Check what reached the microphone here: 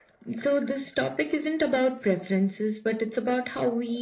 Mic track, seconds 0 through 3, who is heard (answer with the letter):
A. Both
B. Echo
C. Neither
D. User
B